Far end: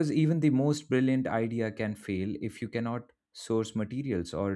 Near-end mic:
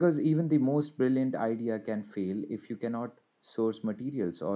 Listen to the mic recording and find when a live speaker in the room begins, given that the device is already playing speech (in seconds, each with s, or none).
none